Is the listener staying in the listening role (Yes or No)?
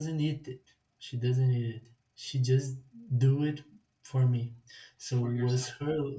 Yes